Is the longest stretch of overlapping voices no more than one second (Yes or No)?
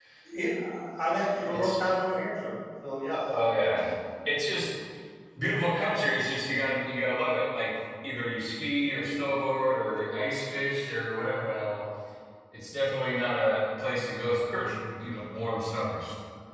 Yes